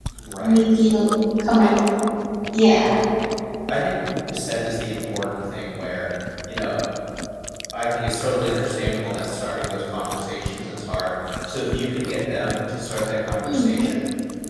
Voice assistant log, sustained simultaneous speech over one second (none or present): none